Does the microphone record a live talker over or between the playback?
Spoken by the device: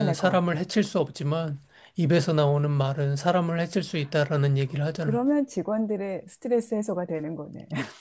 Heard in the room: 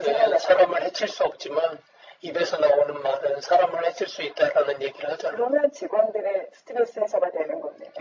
No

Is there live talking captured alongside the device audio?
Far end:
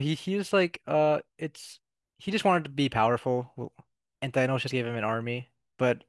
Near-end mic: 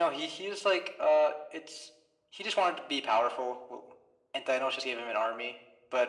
No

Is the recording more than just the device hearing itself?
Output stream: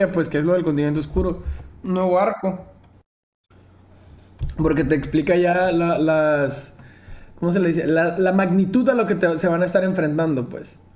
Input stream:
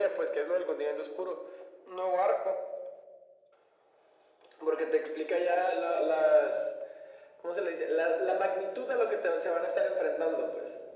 No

